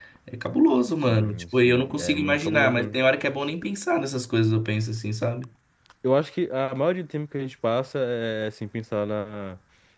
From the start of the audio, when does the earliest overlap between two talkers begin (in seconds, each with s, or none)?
1.0 s